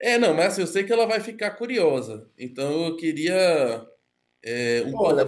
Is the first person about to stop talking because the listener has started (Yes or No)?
Yes